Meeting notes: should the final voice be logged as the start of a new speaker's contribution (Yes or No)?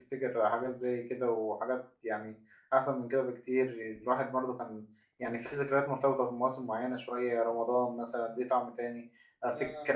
No